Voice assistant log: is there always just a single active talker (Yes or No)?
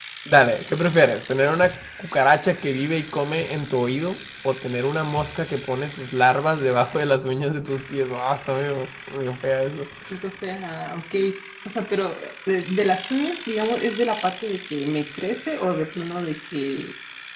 Yes